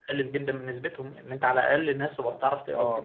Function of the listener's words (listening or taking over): taking over